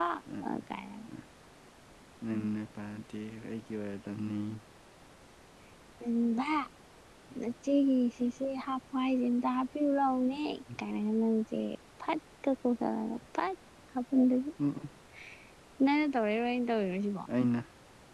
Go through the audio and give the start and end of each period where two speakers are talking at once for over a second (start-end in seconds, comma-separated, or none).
none